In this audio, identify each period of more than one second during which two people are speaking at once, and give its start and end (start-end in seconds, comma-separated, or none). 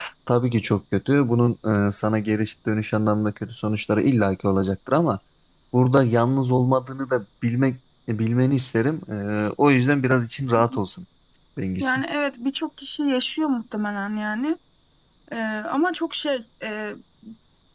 none